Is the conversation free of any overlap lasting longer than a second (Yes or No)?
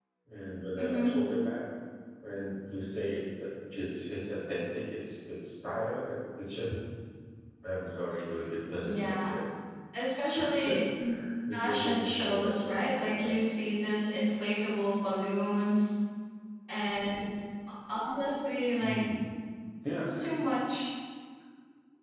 No